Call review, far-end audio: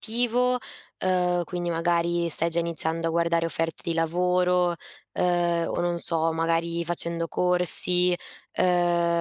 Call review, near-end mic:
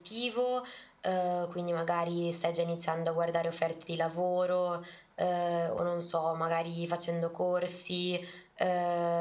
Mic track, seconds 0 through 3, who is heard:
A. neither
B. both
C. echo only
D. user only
C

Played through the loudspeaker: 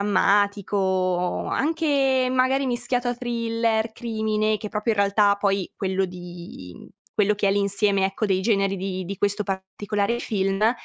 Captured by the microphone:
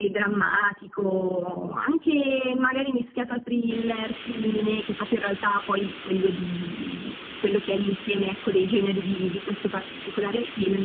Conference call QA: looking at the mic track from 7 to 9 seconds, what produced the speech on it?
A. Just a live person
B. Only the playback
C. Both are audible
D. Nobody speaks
B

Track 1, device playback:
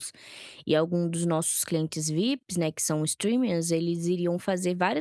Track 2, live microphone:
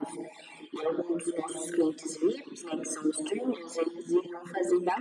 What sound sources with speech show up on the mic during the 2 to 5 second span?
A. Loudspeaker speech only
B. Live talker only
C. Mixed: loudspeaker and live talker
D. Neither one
A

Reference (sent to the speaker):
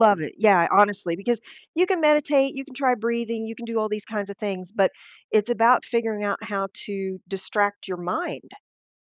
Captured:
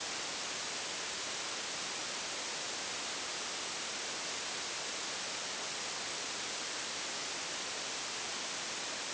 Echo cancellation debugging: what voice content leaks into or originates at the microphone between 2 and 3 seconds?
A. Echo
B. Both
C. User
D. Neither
D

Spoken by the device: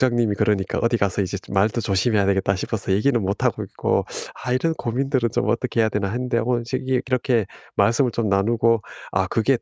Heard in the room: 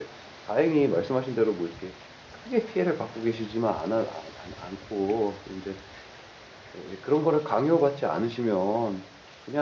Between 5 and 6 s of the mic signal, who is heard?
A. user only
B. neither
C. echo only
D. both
A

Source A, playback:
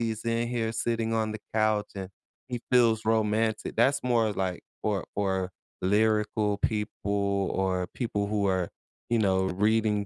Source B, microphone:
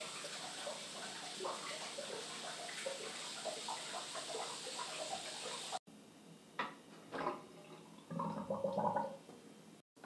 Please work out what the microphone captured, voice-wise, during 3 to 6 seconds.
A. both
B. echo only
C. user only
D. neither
D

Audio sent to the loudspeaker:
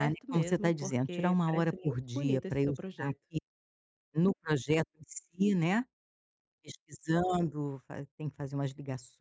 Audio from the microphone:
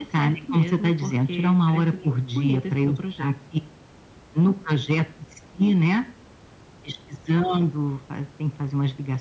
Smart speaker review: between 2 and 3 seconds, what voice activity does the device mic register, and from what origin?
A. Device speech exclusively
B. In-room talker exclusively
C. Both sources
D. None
A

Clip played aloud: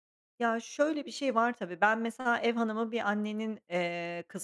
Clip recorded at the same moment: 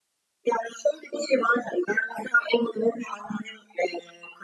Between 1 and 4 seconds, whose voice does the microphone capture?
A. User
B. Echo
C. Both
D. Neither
B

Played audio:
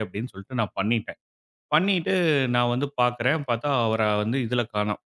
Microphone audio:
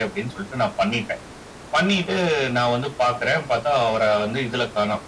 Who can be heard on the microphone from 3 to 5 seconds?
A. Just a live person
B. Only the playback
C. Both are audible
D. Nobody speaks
B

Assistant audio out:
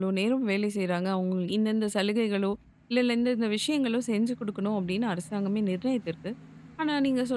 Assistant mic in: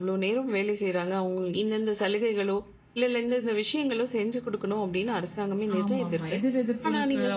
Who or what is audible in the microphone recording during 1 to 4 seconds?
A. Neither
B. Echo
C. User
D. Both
B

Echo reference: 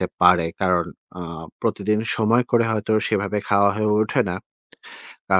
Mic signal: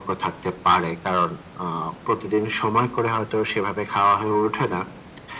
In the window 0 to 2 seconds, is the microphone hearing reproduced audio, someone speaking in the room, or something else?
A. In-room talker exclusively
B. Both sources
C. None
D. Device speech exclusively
D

